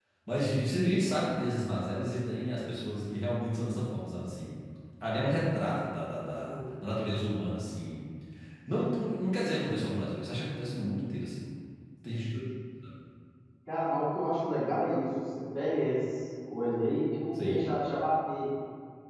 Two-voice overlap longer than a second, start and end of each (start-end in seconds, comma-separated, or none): none